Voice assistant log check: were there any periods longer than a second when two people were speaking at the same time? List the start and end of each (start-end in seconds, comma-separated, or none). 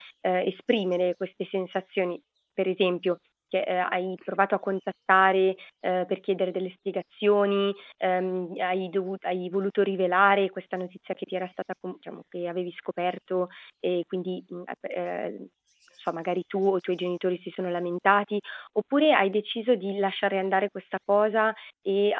none